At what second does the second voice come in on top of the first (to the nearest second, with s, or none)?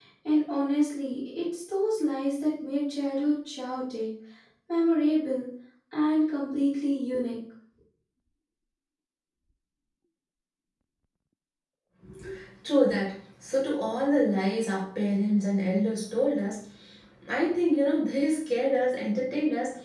none